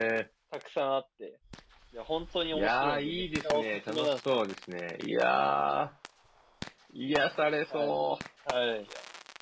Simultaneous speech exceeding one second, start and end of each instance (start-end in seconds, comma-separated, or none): 2.5-4.2